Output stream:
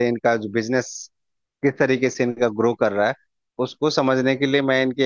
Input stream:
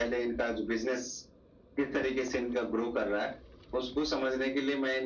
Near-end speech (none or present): none